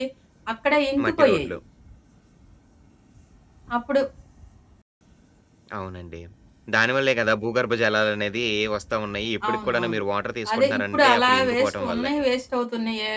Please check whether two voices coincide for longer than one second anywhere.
Yes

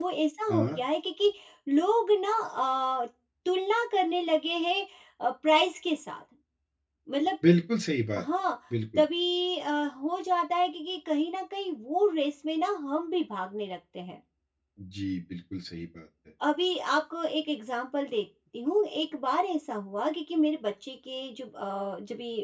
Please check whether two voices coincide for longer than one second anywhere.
No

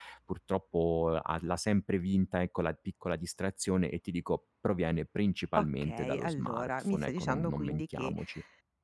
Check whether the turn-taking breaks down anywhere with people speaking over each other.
Yes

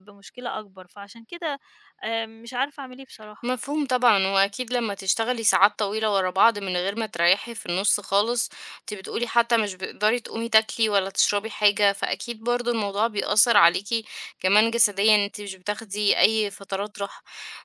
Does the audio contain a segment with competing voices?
No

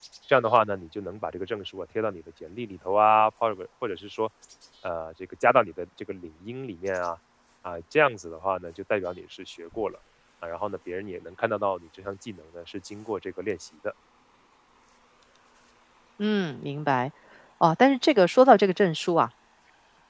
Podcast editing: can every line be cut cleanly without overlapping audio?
Yes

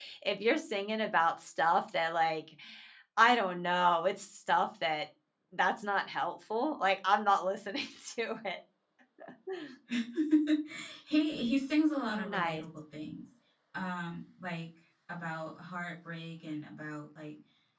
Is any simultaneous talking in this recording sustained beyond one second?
No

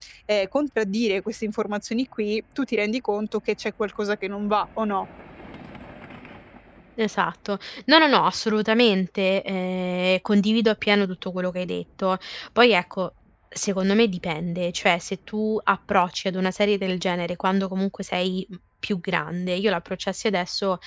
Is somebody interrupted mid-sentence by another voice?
No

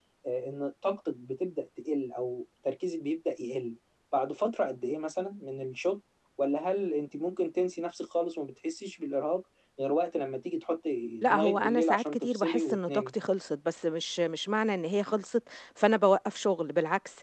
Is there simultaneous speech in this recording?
Yes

